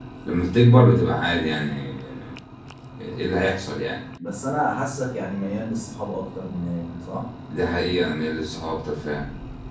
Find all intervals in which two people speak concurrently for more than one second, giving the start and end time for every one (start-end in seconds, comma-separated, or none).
none